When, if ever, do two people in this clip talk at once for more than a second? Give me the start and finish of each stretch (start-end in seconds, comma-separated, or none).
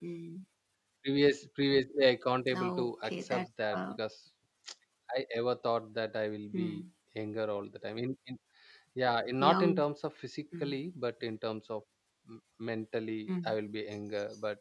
2.5-4.0